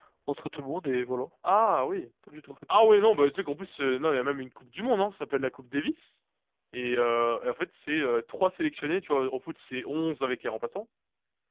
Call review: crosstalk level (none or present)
none